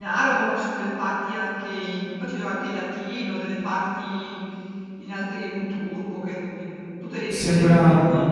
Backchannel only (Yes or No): No